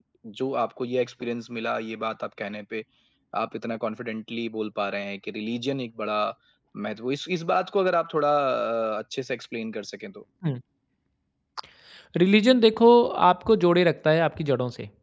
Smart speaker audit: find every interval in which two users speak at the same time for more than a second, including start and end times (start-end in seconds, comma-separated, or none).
none